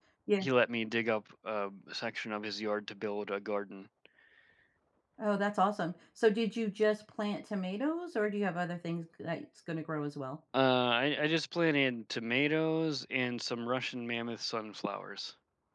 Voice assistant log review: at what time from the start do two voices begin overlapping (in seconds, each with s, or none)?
none